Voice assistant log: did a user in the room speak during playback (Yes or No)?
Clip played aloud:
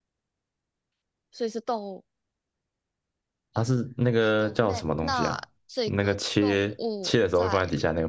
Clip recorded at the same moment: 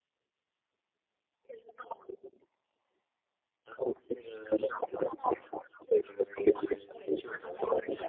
Yes